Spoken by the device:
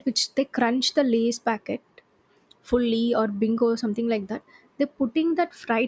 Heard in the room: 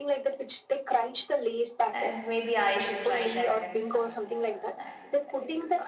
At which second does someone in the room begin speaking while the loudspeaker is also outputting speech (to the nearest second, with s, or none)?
2 s